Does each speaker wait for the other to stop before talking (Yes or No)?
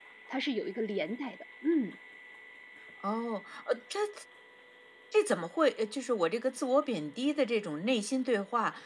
Yes